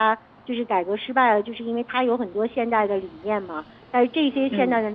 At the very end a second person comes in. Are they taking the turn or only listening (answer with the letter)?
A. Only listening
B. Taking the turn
A